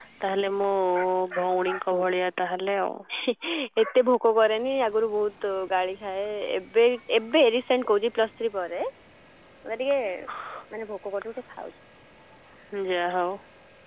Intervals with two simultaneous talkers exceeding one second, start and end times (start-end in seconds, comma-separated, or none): none